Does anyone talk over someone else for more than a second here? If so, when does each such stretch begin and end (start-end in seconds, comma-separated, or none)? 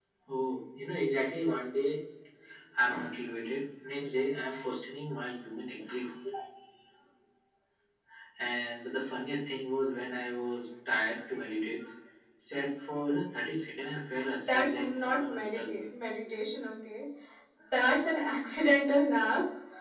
14.5-15.8